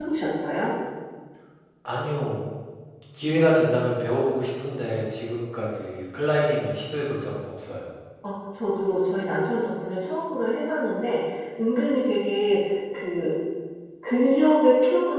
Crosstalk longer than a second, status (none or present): none